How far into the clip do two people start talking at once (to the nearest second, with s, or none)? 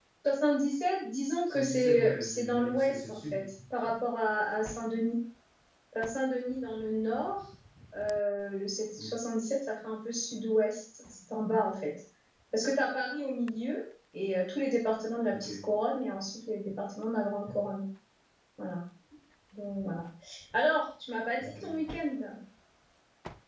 1 s